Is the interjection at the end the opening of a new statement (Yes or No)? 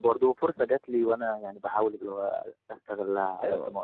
Yes